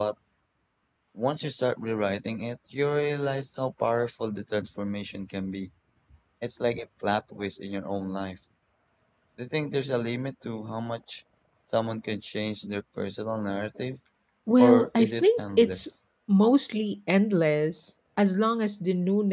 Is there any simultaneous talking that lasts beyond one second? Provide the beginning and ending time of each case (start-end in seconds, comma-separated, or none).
14.6-15.9